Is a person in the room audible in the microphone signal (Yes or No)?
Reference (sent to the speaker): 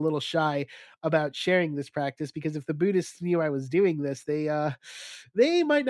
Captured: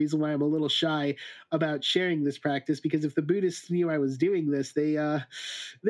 No